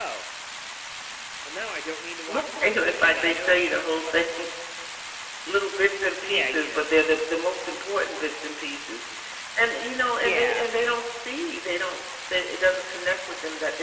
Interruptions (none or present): present